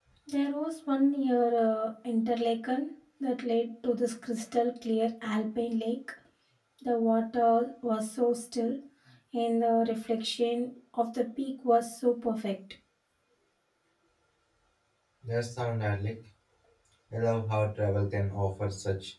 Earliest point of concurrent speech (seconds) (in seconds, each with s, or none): none